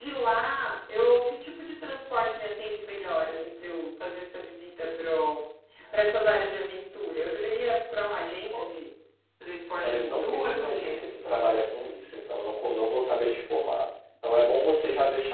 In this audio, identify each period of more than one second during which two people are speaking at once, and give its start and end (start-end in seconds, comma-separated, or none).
9.8-11.1